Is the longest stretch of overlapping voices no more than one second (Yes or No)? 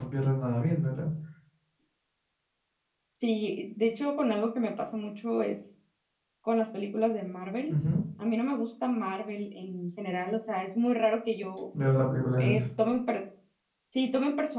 Yes